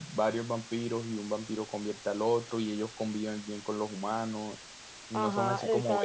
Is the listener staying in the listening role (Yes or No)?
No